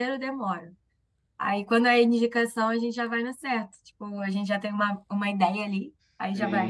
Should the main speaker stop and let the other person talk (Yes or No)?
Yes